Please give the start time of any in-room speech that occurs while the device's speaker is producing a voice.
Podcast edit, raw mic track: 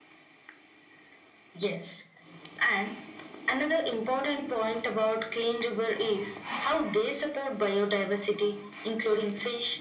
none

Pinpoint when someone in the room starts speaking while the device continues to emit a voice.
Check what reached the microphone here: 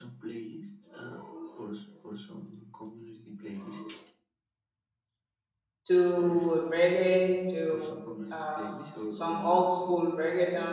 5.9 s

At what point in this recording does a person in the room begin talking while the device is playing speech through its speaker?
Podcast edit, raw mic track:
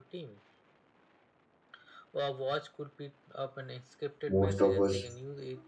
4.2 s

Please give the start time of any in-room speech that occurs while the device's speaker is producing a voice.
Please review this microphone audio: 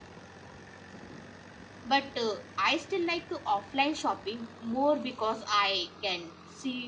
1.8 s

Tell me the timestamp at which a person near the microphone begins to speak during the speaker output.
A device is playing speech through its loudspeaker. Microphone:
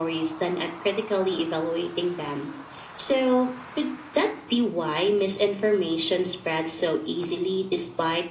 none

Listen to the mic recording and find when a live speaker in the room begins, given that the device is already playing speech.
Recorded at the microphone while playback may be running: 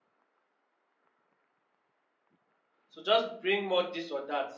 2.9 s

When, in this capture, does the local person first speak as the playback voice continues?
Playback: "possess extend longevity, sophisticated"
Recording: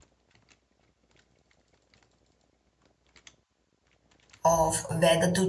4.4 s

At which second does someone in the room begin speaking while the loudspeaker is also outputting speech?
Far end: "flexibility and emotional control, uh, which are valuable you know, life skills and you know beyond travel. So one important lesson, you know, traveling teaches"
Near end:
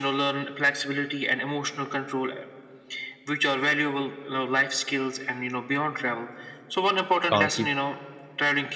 7.2 s

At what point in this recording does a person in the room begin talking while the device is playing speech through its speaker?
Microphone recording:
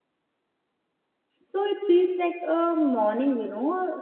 1.4 s

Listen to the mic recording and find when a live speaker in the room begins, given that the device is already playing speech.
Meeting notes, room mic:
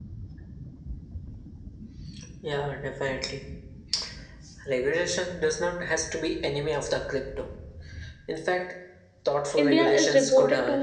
9.6 s

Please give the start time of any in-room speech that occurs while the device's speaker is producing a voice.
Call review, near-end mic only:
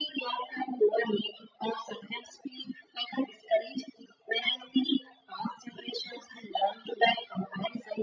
none

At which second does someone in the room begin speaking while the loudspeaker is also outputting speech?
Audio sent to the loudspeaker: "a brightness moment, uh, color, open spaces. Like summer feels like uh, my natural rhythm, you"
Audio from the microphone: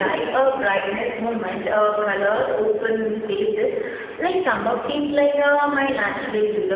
none

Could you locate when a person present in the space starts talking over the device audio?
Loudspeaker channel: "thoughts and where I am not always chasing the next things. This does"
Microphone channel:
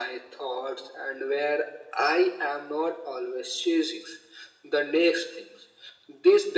none

